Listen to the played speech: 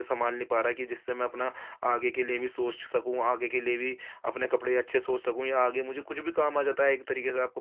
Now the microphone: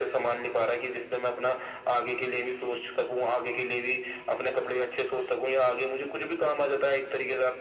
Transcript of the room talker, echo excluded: none

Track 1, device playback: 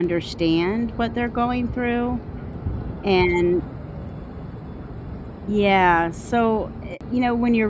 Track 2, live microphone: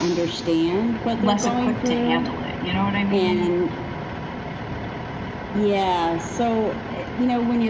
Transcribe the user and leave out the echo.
less equipped to handle it. You know what I mean?

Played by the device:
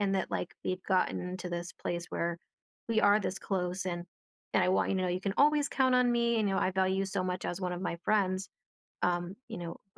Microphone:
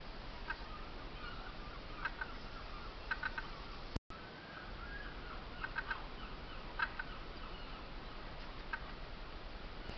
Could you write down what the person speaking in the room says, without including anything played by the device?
none

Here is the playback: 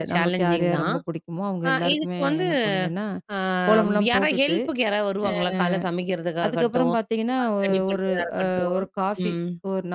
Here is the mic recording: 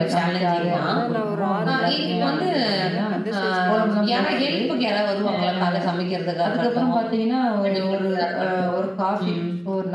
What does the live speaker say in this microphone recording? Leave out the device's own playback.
ஆமா. அதான் நான் ஒரு 6 மணிக்கெல்லாம் வந்து பார்த்தீங்கன்னா, கந்த சஷ்டி கவசம் போட ஆரம்பிச்சுருவேன்.

